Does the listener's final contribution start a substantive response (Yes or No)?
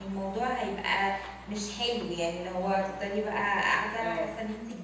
Yes